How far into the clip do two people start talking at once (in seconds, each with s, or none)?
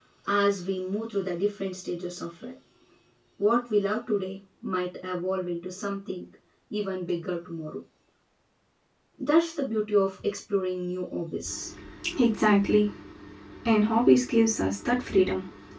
none